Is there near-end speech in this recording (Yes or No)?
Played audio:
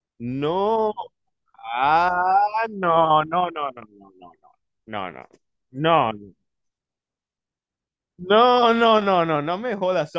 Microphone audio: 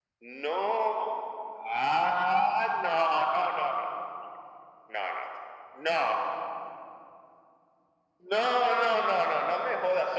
No